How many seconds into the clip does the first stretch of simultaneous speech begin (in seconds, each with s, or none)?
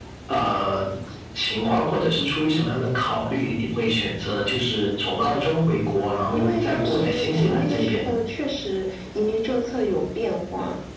6.3 s